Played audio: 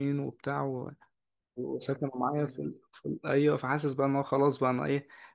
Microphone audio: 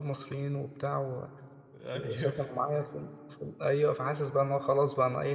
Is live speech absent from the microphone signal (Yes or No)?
No